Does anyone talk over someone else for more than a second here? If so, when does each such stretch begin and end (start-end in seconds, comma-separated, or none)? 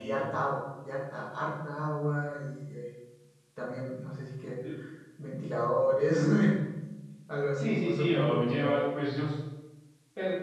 7.6-8.8